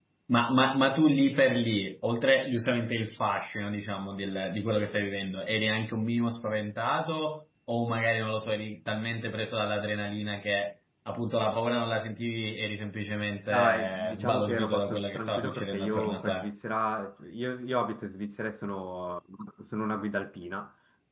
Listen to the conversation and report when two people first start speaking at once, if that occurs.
13.5 s

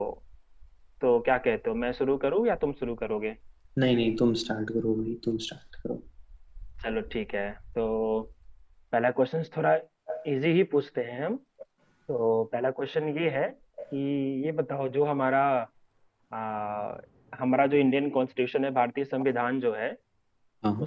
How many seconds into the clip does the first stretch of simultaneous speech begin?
none

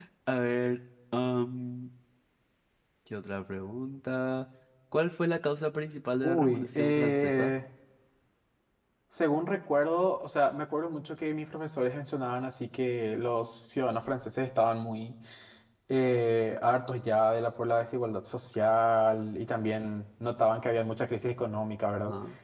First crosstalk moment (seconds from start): 6.2 s

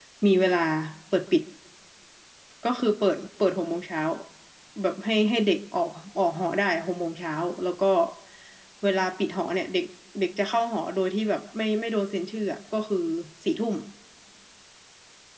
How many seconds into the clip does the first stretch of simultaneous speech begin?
none

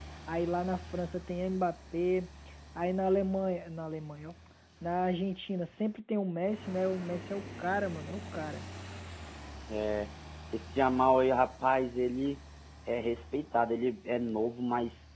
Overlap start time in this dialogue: none

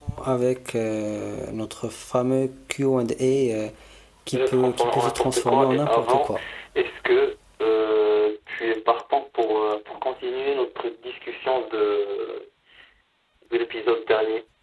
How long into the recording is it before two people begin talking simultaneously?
4.3 s

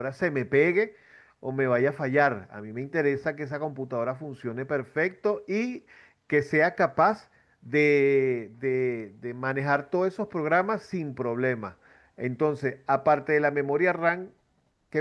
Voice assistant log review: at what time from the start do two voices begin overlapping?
none

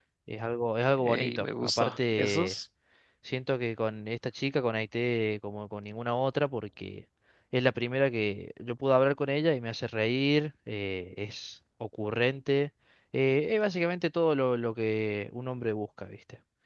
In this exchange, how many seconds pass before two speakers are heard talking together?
1.0 s

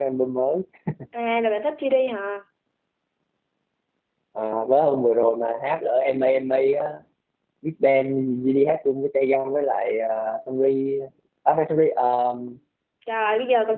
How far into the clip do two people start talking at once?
none

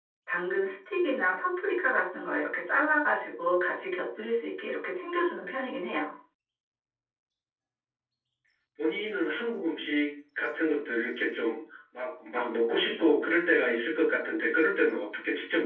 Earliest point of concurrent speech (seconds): none

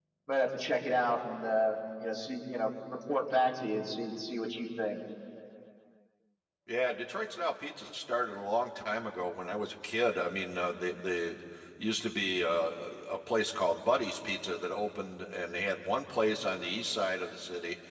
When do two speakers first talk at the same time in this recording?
none

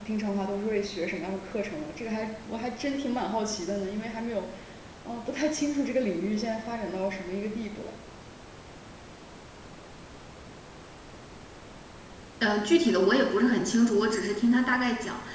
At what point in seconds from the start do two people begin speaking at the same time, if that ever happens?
none

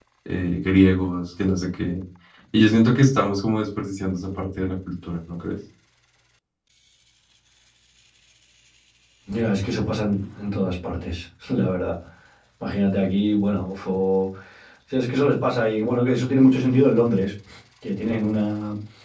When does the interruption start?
none

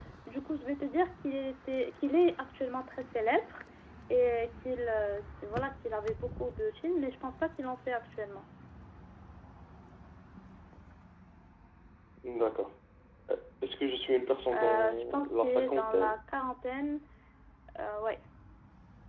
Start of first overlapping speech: 14.5 s

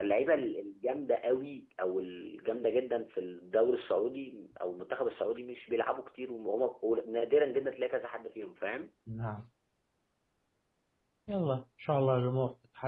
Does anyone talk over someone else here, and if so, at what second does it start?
none

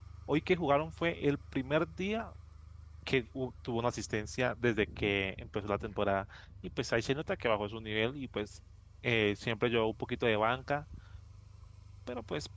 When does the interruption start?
none

